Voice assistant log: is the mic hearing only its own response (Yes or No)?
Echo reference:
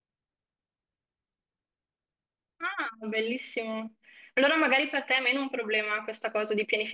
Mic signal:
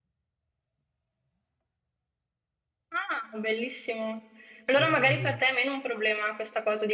No